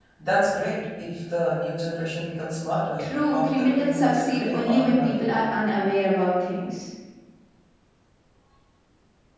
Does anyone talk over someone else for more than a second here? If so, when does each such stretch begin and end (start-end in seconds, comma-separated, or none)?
3.0-5.5